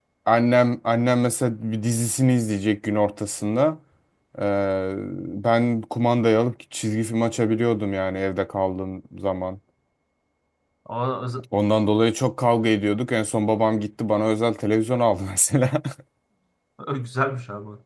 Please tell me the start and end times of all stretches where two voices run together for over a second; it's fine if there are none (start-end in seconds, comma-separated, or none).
none